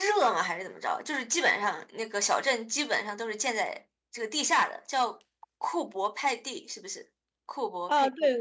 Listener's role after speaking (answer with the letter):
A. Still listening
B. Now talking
B